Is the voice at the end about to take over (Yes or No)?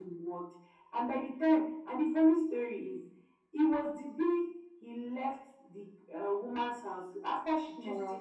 No